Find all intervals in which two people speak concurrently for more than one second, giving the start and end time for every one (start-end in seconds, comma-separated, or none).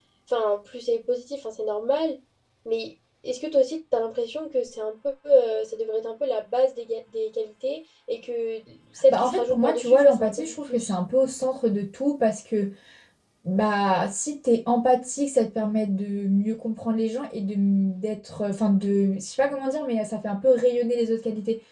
9.1-10.9